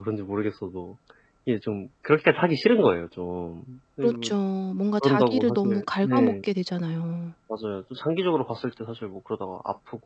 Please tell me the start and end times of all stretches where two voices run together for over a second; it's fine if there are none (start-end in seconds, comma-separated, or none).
5.0-6.3